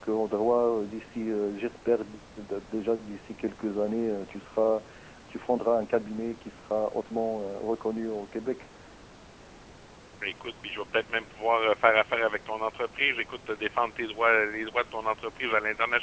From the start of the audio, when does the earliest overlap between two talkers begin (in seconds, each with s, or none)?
none